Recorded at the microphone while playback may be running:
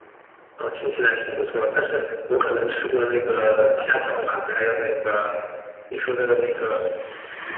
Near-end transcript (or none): 排骨，豆豉蒸排骨。